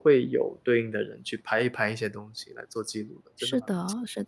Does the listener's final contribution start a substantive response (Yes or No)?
Yes